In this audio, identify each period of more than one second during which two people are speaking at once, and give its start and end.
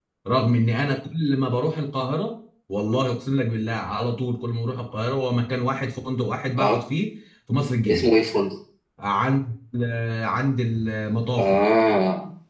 none

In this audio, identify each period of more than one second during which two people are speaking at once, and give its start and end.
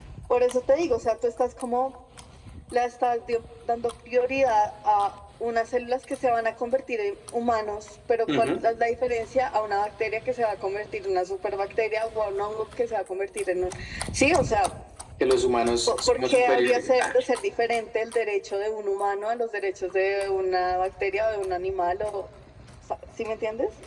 15.9-17.1

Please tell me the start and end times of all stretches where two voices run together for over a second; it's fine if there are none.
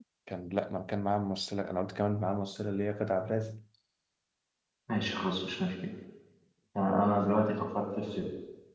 none

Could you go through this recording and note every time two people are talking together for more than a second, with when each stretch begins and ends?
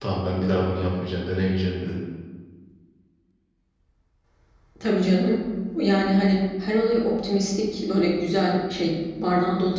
none

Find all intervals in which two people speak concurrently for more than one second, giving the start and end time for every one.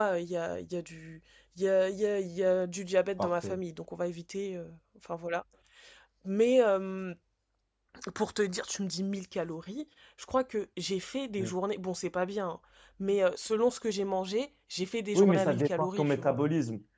15.1-16.4

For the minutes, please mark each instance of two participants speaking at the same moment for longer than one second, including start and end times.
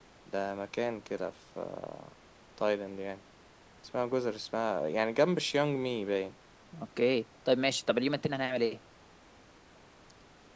none

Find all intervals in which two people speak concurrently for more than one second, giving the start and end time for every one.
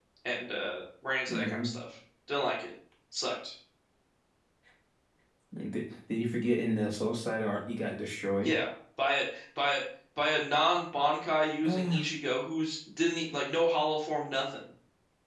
none

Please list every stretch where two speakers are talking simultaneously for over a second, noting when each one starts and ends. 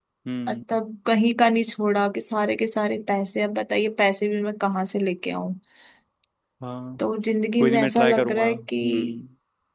7.6-9.2

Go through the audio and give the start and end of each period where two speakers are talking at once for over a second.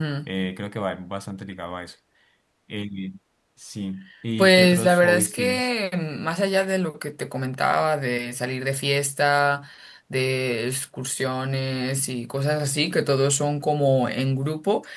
4.4-5.7

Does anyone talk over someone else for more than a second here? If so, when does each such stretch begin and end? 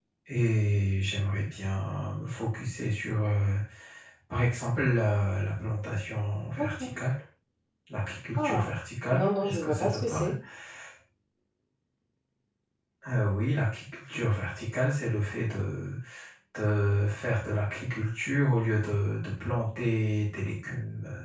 9.1-10.3

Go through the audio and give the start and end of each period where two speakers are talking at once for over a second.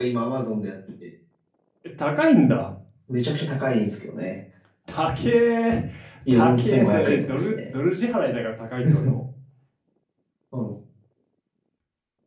6.3-7.7

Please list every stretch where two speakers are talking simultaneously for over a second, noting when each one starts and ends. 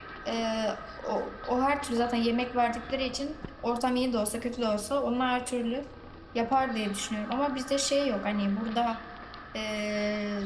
none

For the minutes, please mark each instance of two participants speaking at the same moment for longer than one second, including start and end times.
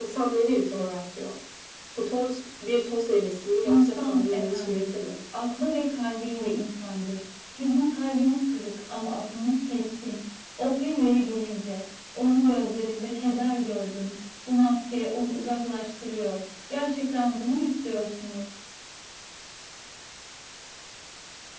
3.6-4.9

